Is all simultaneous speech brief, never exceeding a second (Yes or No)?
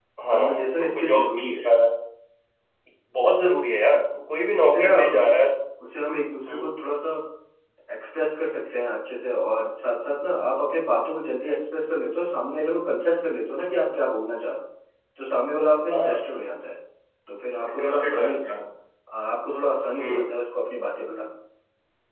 No